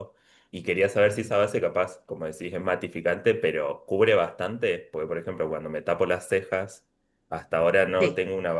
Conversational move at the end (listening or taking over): listening